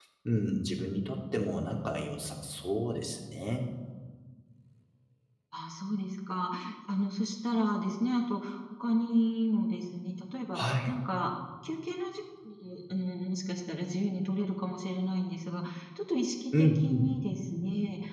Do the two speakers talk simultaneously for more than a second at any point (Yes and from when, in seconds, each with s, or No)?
No